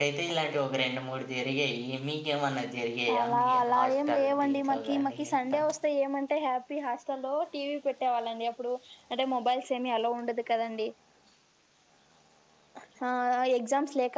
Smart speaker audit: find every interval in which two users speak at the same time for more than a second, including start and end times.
3.2-5.6

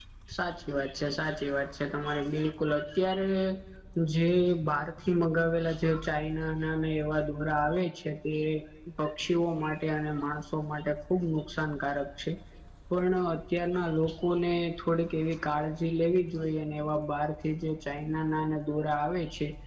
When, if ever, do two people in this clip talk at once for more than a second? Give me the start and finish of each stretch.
none

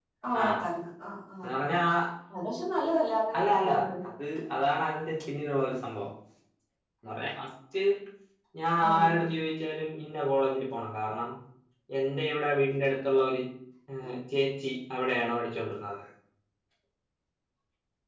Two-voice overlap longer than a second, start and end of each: none

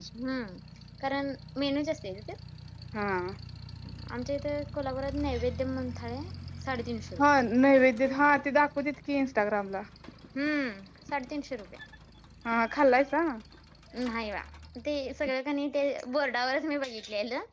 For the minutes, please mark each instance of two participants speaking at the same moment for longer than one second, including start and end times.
none

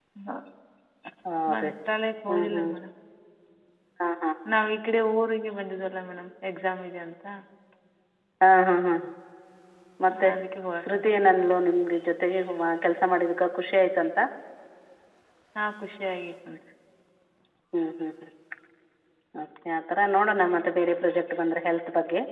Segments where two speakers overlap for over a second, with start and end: none

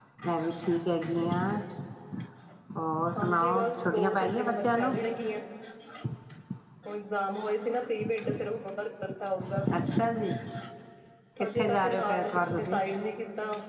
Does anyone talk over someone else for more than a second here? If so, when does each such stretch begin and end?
3.2-5.0, 11.6-12.8

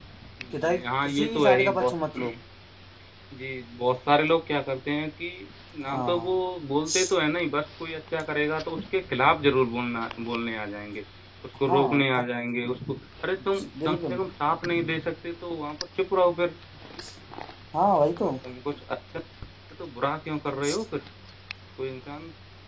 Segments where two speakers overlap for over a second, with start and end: 0.6-1.9

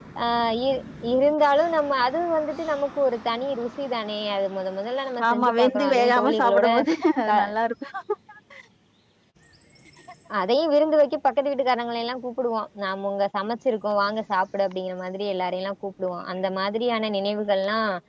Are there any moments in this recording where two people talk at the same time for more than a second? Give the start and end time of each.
5.3-6.7

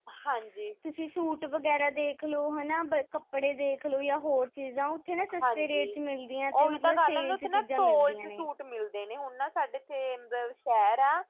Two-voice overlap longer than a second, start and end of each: 6.6-8.4

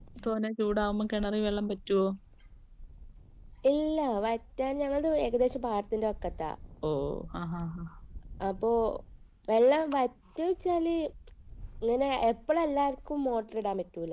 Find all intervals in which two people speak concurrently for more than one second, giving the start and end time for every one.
none

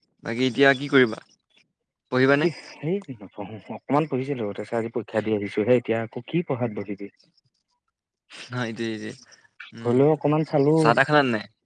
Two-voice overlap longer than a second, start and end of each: none

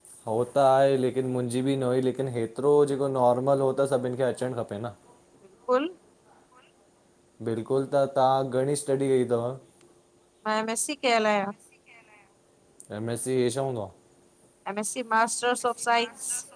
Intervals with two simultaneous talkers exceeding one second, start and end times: none

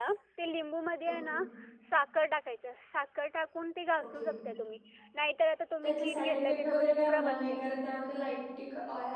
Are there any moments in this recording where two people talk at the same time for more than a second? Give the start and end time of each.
5.8-7.6

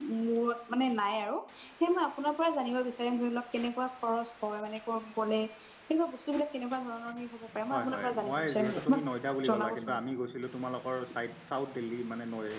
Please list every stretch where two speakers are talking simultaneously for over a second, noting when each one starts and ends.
7.7-9.0

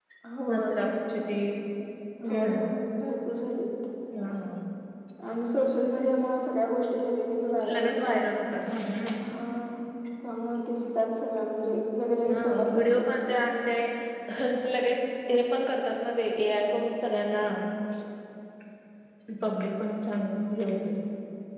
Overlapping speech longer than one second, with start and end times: 12.2-13.5

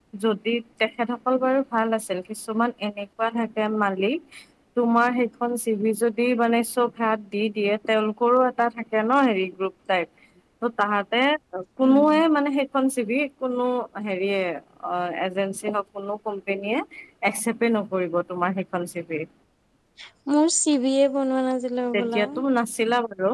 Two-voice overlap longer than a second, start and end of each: none

